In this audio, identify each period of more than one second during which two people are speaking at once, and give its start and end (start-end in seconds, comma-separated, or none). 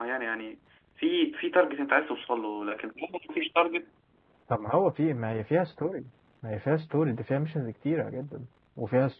none